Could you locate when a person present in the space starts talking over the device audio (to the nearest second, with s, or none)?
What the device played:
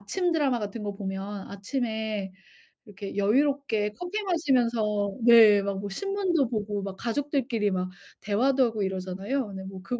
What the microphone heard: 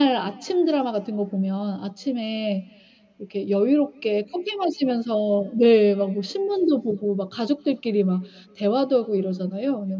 none